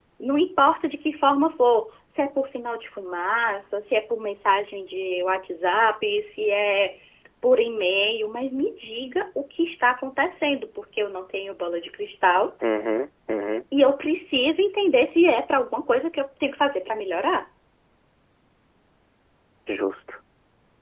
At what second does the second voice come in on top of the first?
none

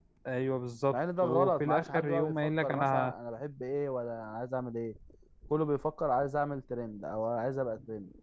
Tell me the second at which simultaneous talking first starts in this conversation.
0.9 s

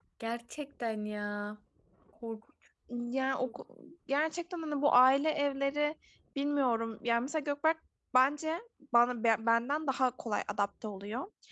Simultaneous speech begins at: none

